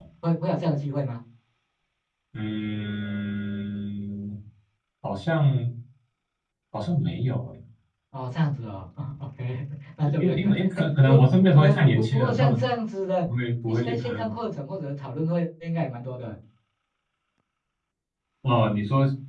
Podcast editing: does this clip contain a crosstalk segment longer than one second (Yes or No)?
Yes